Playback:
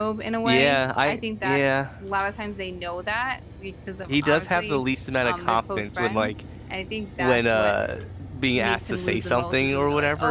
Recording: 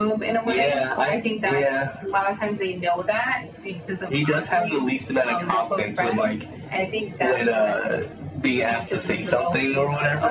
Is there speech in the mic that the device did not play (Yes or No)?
No